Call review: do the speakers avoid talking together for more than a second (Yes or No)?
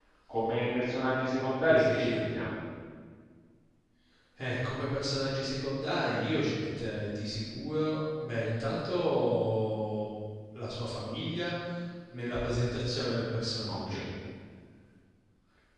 Yes